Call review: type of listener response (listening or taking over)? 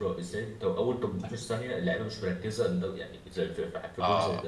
taking over